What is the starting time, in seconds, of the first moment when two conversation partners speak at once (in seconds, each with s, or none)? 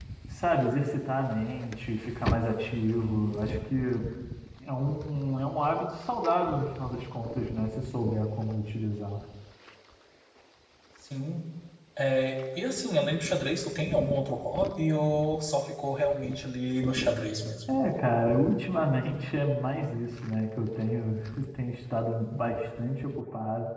none